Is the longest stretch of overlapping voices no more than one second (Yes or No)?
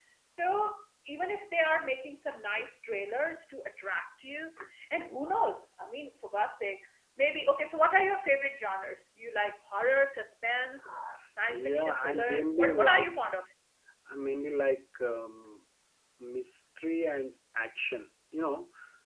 No